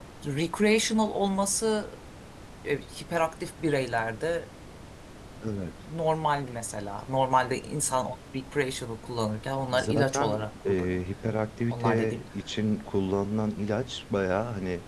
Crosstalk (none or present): present